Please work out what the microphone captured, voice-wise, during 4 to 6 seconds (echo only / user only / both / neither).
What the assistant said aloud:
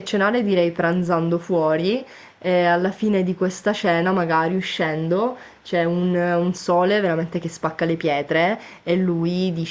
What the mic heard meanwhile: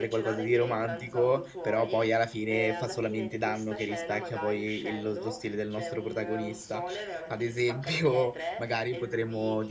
both